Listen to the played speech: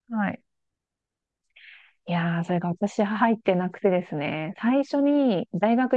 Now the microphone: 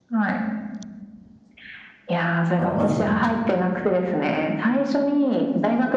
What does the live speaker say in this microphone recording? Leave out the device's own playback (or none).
あの、まず、